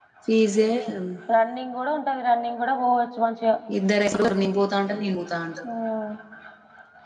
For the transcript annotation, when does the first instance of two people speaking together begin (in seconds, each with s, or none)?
none